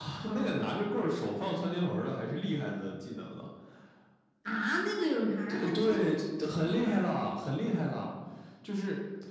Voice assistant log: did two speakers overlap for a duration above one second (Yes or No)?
Yes